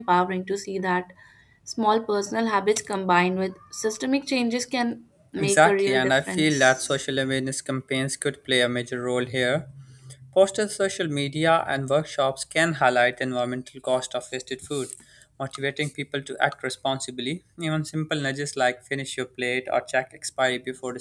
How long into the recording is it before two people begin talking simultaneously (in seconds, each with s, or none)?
5.3 s